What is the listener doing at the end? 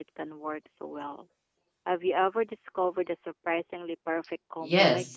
taking over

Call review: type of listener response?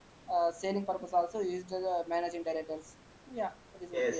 taking over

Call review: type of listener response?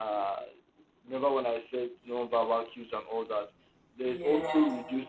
listening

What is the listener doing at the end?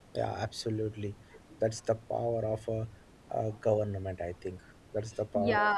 taking over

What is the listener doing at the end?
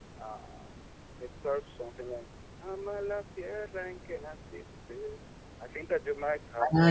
taking over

